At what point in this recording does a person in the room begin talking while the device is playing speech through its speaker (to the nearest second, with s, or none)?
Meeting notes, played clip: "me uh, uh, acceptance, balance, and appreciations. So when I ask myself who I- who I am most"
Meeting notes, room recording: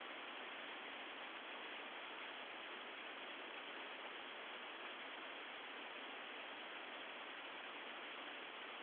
none